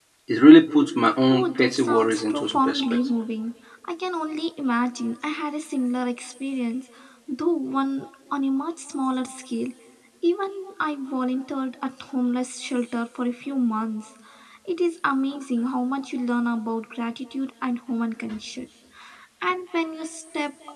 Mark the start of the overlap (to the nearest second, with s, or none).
1 s